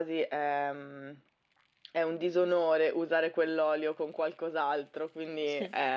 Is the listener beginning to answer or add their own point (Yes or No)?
No